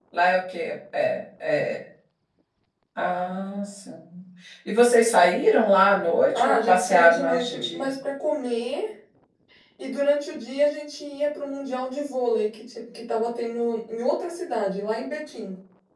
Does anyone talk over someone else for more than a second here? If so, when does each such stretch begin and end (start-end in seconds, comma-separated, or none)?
6.3-7.9